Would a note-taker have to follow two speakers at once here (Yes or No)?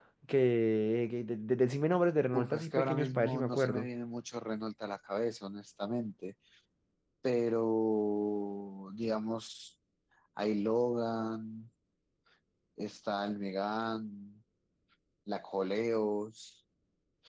Yes